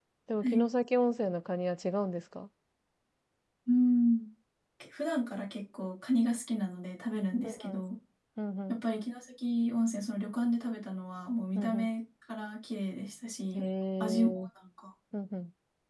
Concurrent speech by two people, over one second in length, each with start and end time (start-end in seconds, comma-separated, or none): none